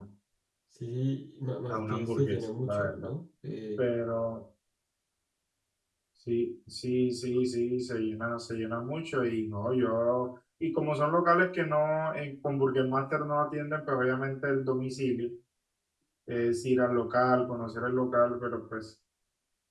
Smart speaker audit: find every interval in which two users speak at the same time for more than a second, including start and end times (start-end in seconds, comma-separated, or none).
1.7-3.1